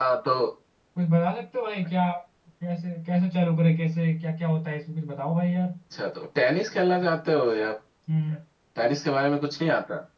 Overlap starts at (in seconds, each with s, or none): none